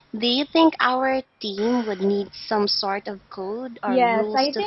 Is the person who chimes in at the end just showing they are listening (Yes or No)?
No